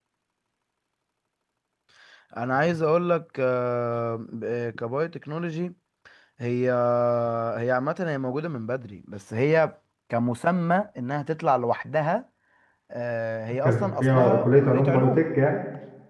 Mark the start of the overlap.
13.6 s

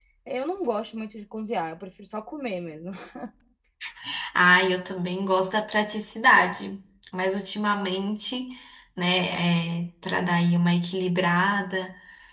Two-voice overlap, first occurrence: none

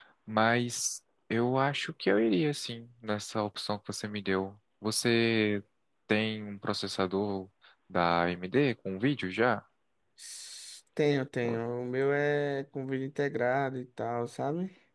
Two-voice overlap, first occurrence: none

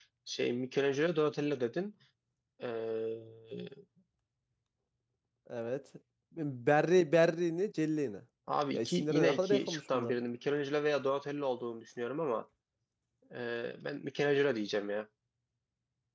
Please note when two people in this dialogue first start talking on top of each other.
8.7 s

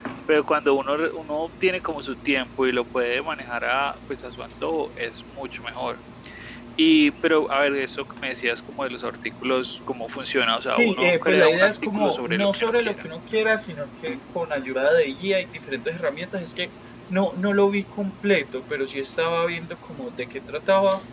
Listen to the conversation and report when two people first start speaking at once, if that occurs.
10.6 s

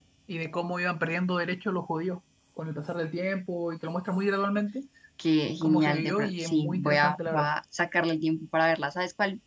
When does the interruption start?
5.6 s

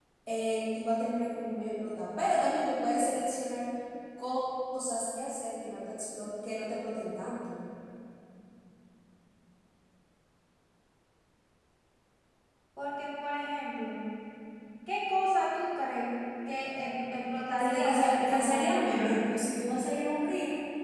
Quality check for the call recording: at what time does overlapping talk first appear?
17.6 s

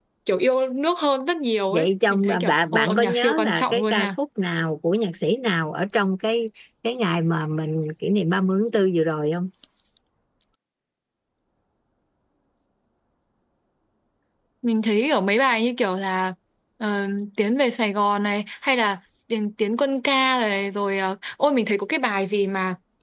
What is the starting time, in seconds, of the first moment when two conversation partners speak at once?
1.7 s

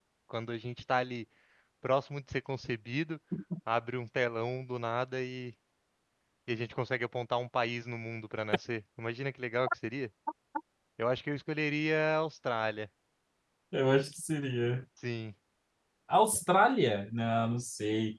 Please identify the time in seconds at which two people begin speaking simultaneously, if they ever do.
none

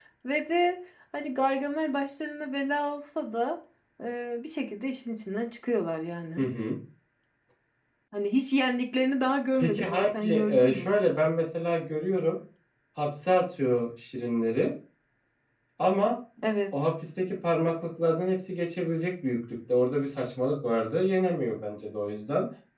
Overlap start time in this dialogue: 9.6 s

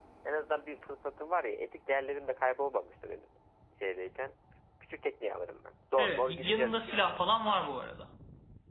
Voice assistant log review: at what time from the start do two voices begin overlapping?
6.0 s

